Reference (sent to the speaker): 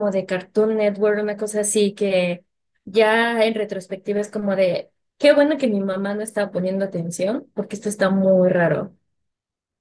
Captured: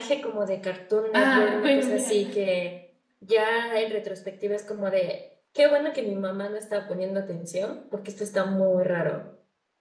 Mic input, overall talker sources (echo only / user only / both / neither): both